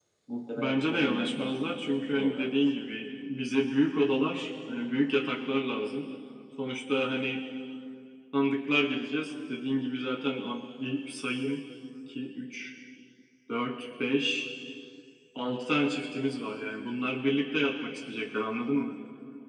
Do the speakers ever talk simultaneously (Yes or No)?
Yes